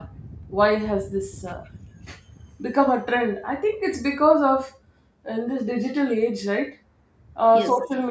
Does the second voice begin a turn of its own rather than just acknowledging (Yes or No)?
No